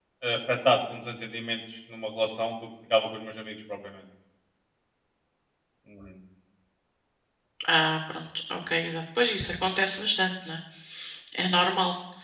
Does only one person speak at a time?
Yes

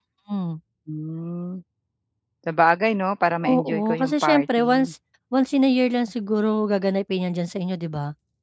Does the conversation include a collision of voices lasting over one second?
Yes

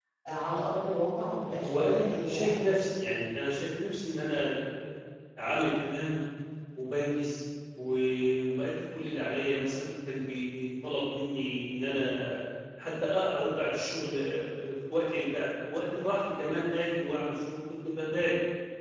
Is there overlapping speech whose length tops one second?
Yes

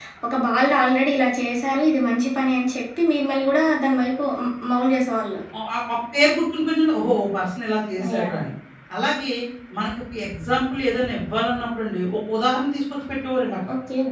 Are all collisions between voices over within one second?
Yes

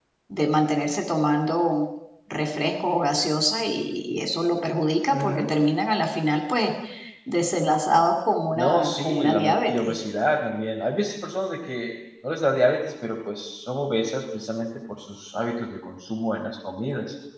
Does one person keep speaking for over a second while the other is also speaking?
Yes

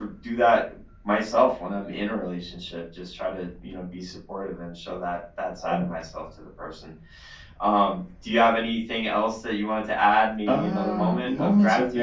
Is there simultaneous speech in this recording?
Yes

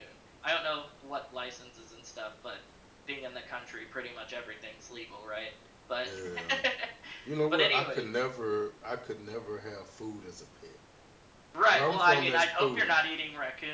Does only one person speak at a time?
No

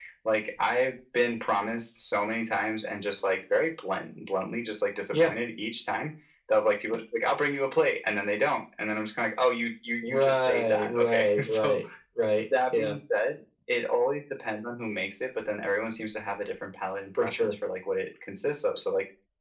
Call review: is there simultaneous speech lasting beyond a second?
Yes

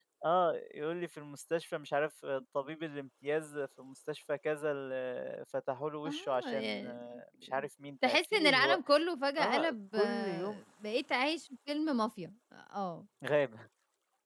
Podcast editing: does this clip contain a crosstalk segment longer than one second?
Yes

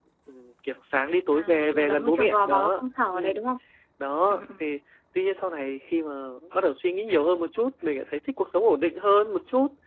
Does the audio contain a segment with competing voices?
Yes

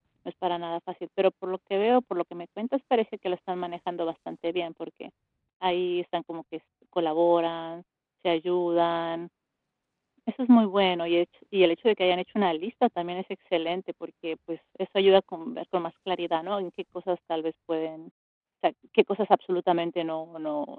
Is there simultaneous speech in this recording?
No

